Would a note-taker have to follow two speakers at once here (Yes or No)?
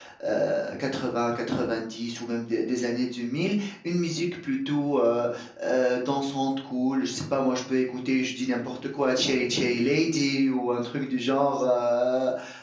No